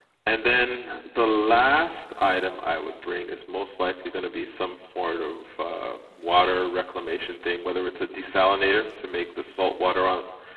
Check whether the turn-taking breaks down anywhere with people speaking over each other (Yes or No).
No